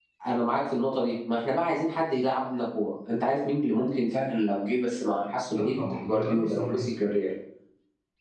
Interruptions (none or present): present